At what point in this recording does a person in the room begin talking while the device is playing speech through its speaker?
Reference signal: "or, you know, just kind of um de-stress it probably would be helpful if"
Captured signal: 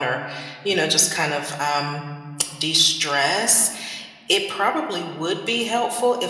none

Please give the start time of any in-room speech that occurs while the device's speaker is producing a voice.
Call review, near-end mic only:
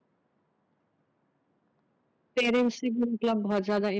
2.3 s

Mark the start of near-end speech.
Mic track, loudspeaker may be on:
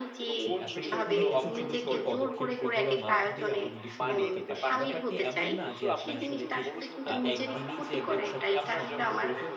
0.4 s

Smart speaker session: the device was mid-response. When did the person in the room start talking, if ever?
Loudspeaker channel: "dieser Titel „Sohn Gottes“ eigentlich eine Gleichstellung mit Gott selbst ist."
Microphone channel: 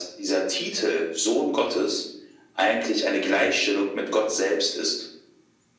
none

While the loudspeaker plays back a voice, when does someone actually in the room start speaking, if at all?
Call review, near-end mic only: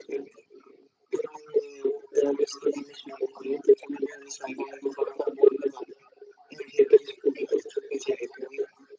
none

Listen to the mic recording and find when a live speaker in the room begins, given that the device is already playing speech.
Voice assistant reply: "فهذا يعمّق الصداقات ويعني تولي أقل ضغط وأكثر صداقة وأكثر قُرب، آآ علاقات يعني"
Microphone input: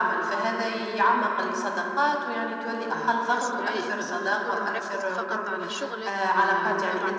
2.9 s

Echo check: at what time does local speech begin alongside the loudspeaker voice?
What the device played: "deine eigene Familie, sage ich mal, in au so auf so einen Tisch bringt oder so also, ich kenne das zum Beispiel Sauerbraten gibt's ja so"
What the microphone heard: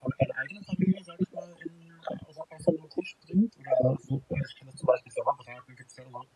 none

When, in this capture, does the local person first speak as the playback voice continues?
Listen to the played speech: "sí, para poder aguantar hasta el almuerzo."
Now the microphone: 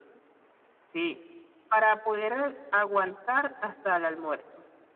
none

